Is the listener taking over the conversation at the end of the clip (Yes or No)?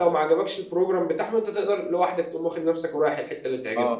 Yes